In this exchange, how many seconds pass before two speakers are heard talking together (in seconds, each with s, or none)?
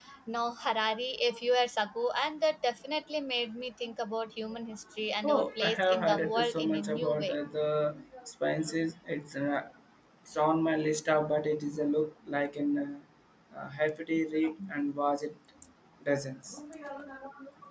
5.2 s